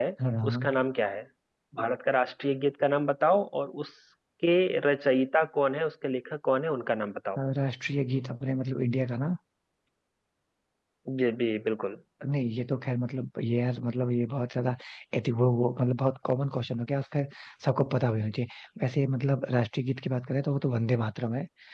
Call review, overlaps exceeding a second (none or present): none